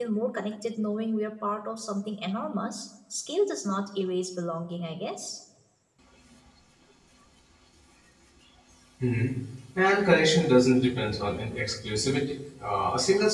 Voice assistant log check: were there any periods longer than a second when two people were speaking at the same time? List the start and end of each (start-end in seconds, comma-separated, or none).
none